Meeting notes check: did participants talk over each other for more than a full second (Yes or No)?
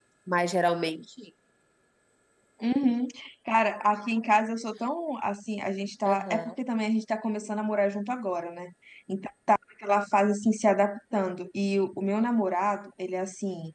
No